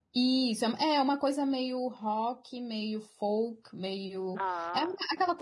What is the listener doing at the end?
listening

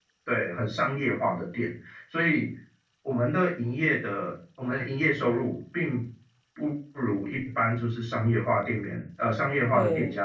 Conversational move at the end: listening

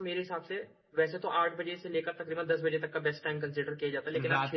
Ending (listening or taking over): listening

